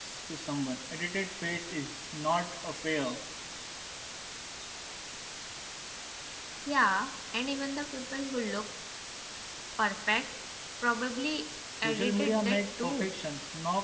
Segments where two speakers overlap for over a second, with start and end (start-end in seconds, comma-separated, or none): 11.8-13.1